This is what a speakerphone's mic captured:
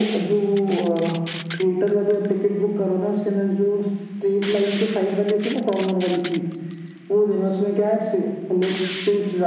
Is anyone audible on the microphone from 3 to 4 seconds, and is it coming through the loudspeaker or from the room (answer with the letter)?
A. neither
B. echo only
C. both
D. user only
B